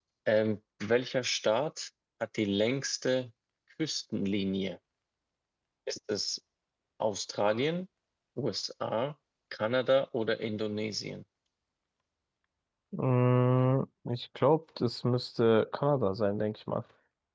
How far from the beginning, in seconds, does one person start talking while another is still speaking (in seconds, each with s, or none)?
none